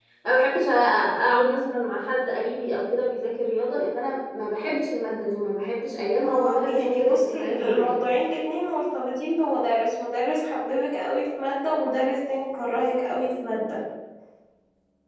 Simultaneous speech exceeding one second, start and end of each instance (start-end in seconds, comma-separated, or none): 6.2-8.1